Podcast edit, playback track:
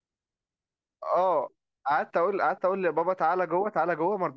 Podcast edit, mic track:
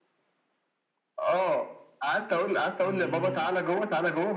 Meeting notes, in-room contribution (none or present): present